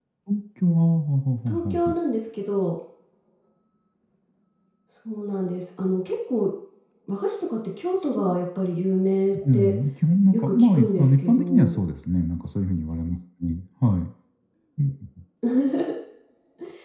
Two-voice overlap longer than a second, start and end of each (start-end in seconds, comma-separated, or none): 10.3-11.8